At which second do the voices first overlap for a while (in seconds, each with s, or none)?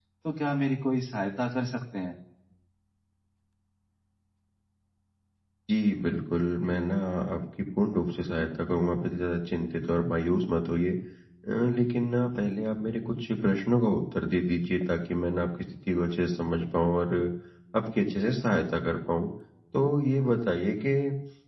none